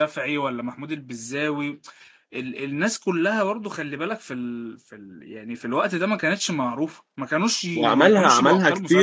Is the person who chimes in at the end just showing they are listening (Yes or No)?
No